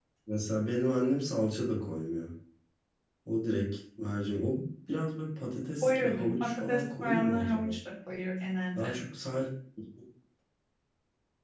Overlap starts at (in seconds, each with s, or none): 5.8 s